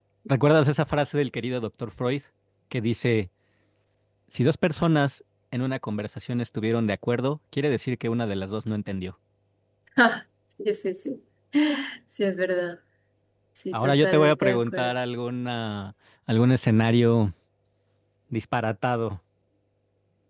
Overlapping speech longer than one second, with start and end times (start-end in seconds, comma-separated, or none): 13.7-14.9